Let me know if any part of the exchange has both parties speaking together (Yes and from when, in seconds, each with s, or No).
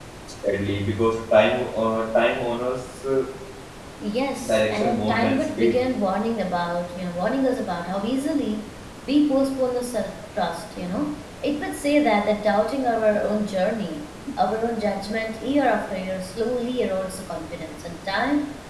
Yes, from 4.5 s